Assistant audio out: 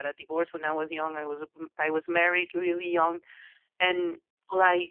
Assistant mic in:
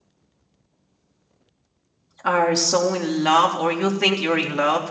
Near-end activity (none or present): present